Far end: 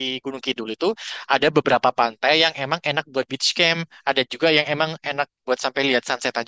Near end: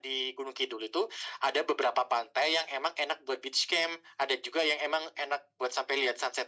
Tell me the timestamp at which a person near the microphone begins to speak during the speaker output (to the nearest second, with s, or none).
none